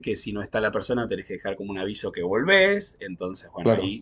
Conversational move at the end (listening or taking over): listening